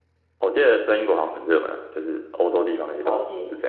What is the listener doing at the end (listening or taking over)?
taking over